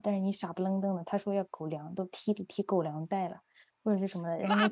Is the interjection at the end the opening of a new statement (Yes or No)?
Yes